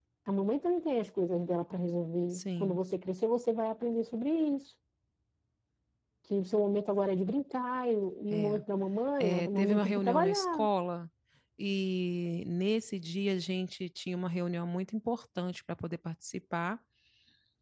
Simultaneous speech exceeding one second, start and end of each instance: 9.2-10.7

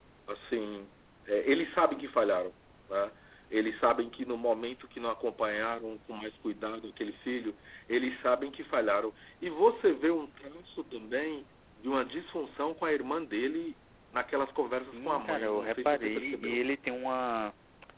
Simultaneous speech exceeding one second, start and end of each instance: 14.9-16.6

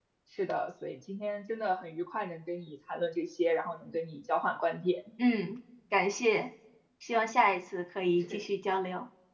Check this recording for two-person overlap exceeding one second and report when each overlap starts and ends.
none

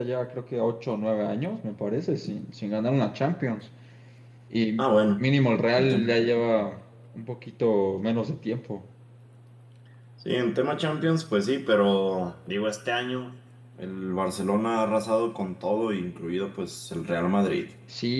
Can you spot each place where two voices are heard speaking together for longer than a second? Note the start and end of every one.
none

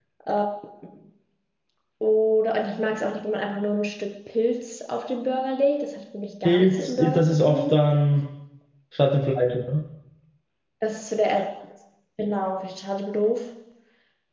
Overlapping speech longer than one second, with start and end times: 6.5-7.8

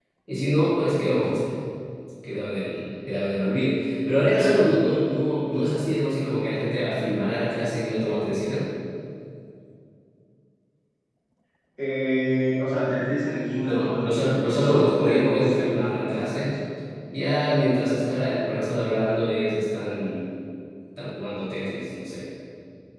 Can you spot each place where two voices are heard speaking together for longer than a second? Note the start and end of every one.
13.6-16.6

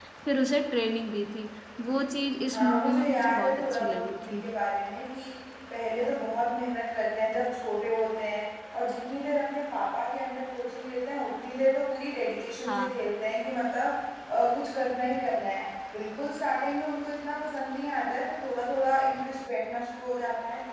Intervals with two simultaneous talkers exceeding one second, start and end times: 2.5-4.4

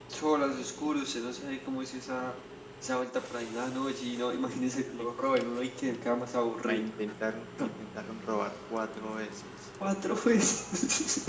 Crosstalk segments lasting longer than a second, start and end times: none

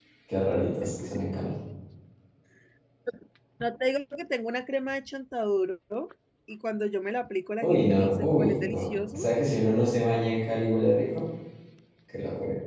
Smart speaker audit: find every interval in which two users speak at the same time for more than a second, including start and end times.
7.6-9.3

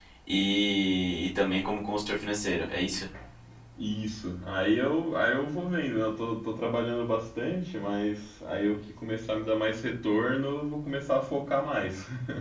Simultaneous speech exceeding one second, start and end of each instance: none

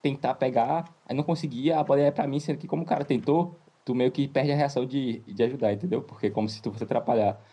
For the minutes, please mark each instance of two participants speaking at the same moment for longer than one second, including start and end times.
none

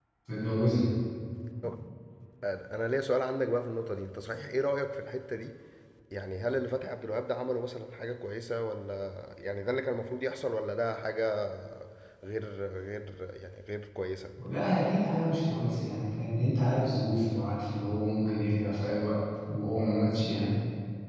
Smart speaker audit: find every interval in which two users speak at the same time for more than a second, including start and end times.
none

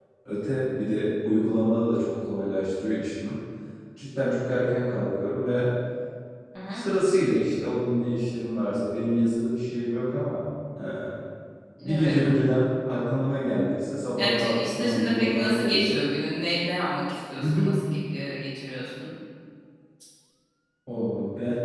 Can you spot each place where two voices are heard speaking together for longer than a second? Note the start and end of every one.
14.2-16.0

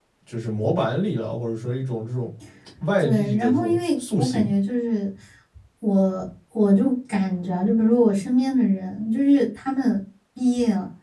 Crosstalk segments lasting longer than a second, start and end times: 3.0-4.5

